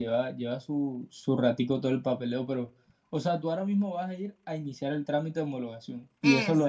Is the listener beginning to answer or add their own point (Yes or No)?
No